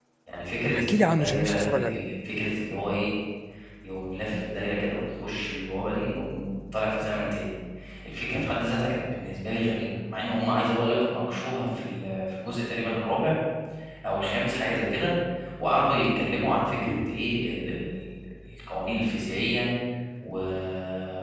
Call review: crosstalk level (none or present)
present